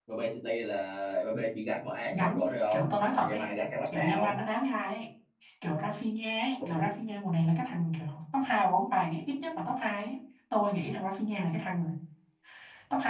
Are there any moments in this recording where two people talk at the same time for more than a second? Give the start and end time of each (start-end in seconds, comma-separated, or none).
2.1-3.5